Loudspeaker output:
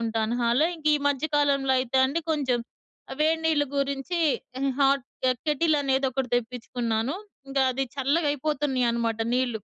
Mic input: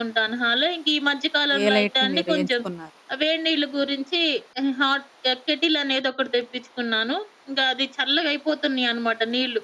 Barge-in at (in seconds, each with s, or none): 1.6 s